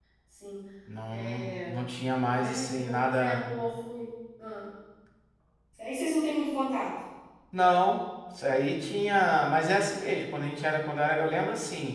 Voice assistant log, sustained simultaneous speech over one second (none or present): present